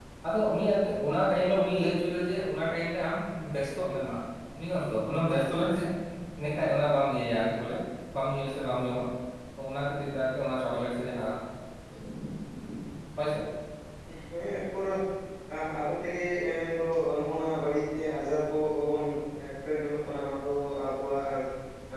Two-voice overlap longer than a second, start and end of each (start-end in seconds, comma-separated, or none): none